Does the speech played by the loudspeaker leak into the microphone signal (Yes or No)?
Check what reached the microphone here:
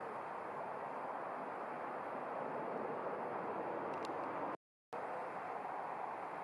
No